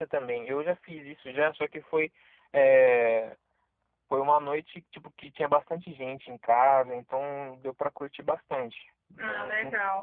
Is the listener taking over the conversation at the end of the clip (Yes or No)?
Yes